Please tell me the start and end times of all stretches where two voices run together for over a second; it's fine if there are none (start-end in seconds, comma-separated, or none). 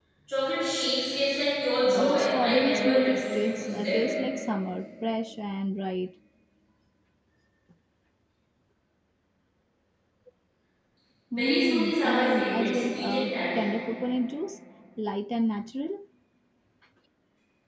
1.9-4.1, 11.3-13.7